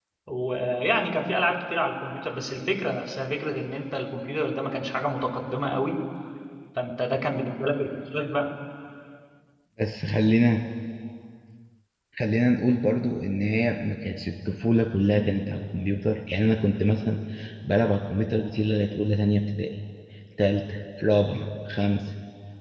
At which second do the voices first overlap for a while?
none

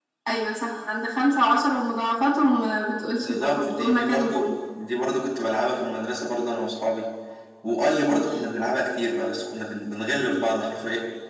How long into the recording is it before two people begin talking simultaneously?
3.2 s

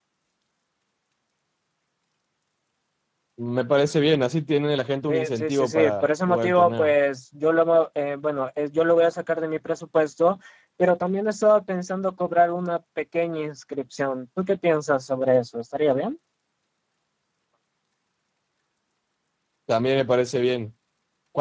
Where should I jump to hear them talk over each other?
5.1 s

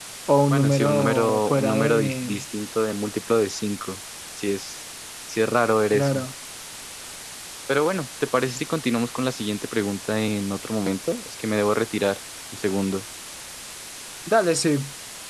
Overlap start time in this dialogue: 0.5 s

